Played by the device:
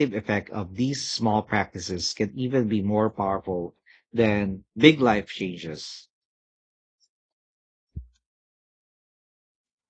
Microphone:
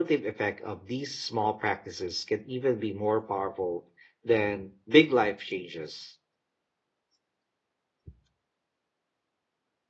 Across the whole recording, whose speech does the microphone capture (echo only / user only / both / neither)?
echo only